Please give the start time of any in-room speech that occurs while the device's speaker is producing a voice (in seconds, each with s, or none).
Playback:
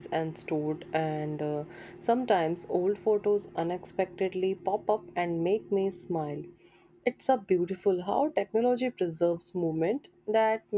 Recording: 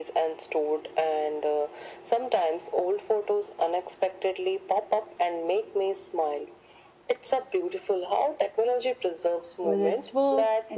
9.6 s